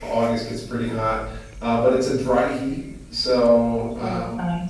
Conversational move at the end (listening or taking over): listening